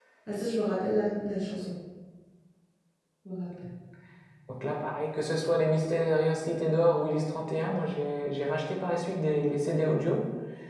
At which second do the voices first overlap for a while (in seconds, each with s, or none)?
none